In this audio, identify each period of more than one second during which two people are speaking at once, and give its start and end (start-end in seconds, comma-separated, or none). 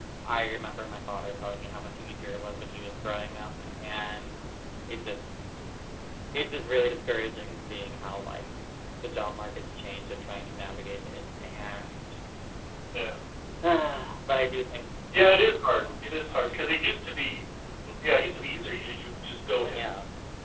none